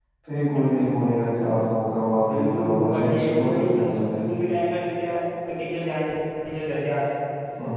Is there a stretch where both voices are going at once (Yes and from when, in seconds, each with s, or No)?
Yes, from 2.2 s